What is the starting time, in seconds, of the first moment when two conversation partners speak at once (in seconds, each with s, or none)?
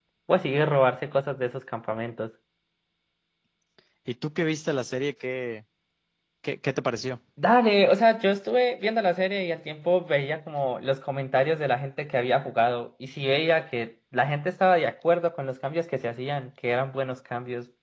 none